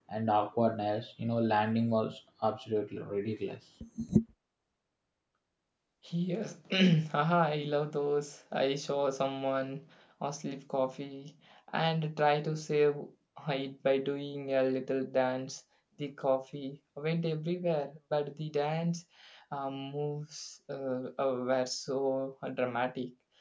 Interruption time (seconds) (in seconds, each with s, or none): none